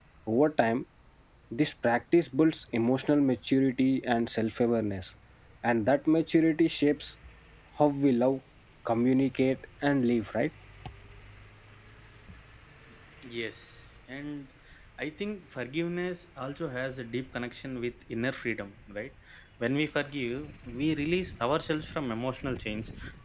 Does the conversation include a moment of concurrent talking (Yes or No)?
No